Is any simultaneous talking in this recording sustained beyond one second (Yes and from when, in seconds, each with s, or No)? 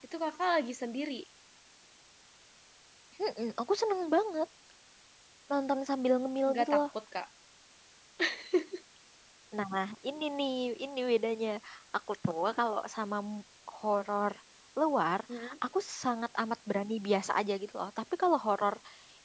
No